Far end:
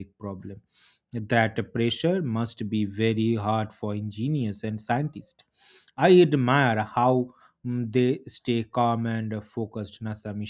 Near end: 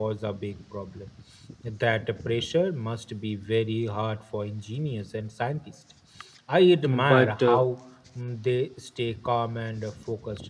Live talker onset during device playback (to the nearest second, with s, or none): 7 s